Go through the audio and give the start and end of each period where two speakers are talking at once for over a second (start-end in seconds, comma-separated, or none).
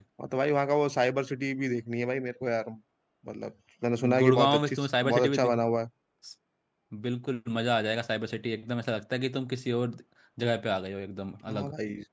4.2-5.6